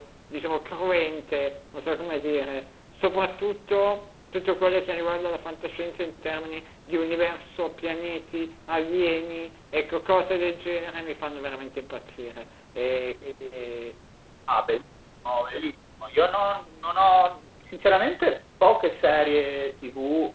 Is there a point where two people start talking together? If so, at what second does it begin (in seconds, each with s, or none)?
none